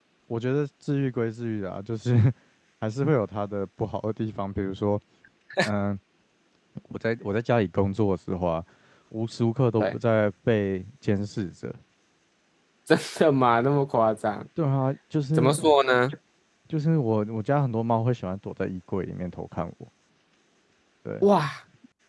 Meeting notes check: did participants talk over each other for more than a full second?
No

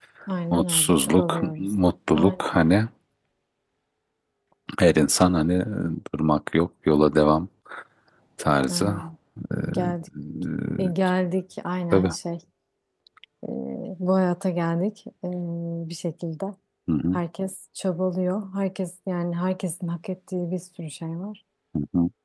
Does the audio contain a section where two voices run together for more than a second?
Yes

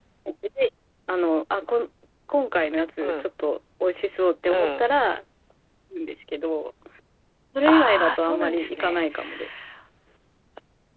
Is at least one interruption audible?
Yes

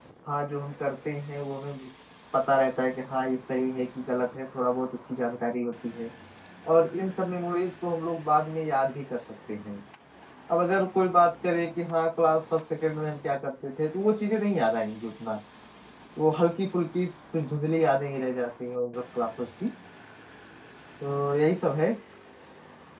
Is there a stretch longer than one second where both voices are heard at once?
No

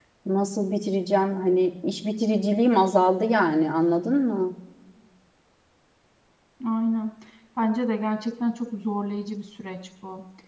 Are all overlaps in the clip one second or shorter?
Yes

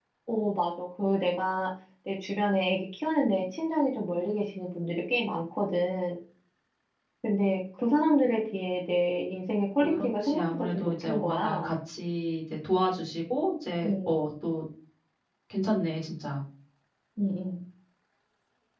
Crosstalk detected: Yes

